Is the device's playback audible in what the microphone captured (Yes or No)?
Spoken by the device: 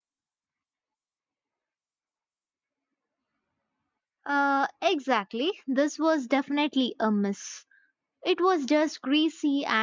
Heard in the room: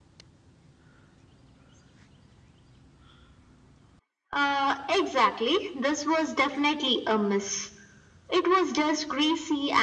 Yes